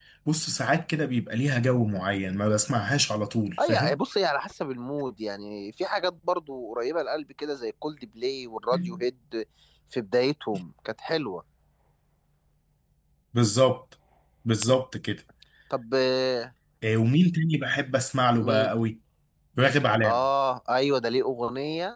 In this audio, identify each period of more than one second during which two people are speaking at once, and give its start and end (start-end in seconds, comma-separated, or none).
none